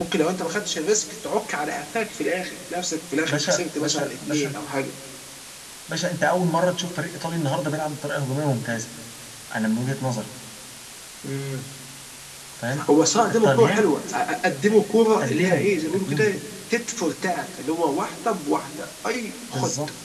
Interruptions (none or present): present